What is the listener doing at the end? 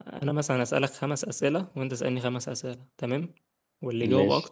listening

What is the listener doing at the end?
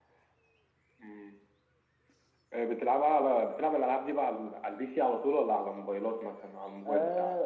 taking over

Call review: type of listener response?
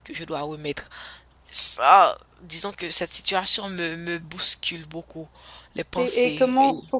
taking over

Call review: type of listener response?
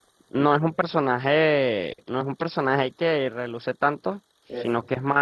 listening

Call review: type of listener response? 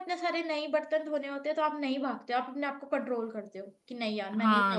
taking over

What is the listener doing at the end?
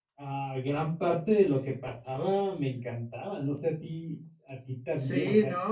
taking over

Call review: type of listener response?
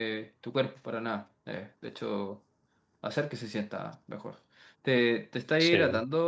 listening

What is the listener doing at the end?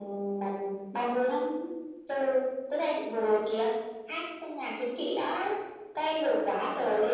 listening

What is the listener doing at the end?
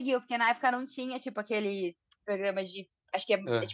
listening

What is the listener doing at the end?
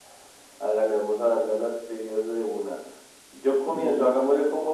listening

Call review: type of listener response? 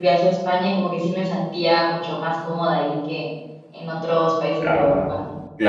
taking over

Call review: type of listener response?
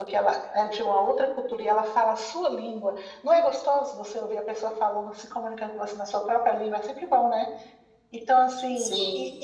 taking over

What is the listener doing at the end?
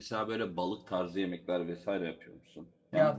taking over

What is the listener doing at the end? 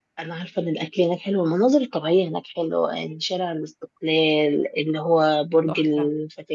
listening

